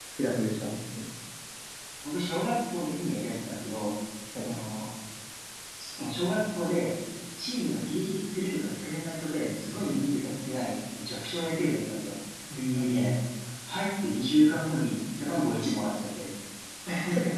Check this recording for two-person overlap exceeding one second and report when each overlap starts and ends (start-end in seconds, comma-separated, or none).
none